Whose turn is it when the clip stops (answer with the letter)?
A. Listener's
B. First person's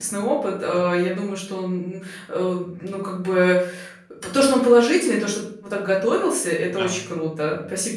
B